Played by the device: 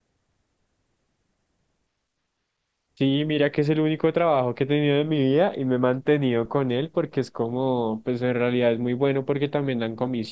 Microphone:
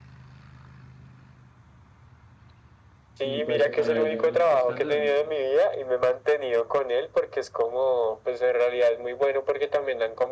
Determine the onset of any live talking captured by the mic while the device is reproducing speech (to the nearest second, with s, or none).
3 s